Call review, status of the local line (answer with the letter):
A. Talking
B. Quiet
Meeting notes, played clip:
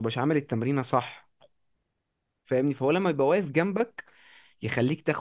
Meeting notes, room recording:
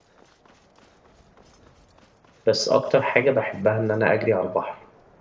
A